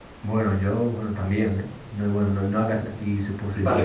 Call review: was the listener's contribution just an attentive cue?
No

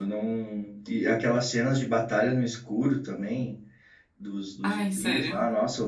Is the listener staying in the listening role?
Yes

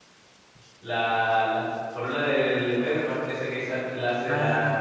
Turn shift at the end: Yes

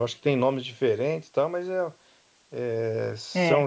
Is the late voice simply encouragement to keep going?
Yes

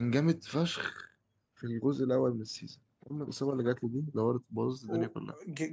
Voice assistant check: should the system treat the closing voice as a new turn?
Yes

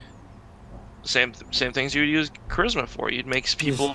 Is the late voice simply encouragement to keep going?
Yes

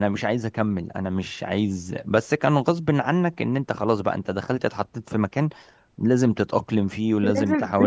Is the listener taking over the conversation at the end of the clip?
Yes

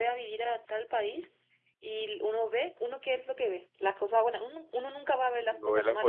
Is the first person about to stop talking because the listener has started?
Yes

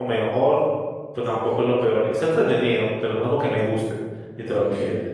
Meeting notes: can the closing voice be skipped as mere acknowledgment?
No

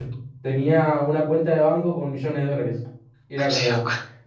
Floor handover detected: No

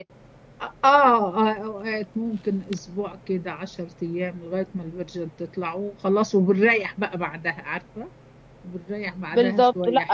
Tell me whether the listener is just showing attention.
No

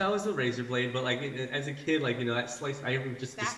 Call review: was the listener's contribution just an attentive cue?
Yes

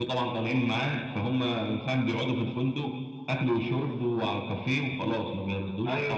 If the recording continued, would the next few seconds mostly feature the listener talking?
Yes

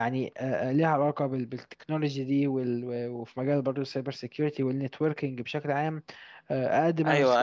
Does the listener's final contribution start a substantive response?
Yes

